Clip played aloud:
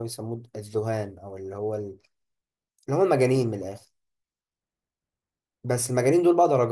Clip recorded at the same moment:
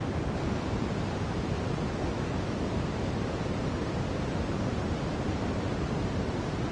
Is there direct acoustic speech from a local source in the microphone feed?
No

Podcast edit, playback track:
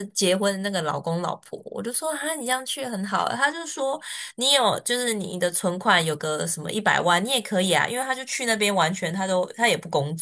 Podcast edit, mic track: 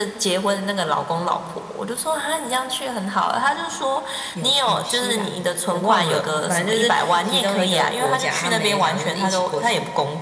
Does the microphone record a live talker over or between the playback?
Yes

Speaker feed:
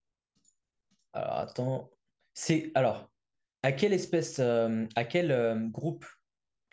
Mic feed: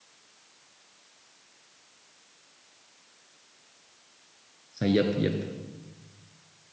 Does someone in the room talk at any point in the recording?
Yes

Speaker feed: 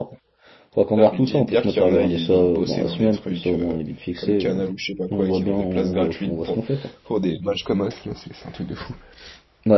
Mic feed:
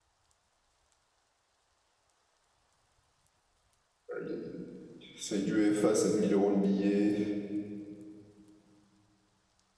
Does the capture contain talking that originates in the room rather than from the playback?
Yes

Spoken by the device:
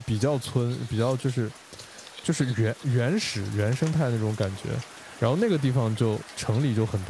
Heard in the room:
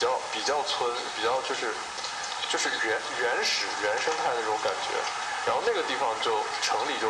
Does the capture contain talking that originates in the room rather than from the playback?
No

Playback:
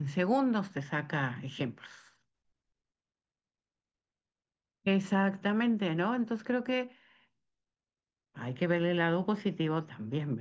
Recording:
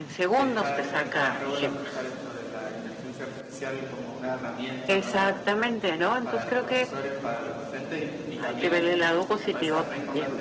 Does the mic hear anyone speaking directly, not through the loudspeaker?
Yes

